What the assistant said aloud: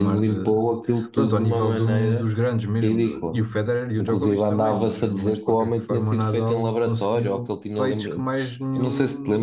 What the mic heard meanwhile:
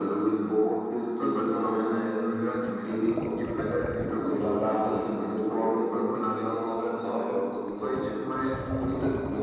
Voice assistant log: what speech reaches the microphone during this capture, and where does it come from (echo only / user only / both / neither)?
echo only